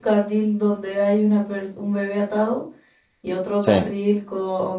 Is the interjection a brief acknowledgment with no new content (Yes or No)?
Yes